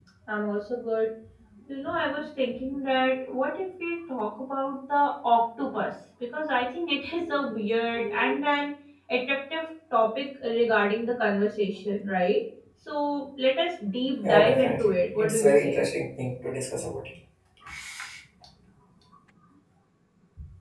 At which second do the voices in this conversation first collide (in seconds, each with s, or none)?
14.2 s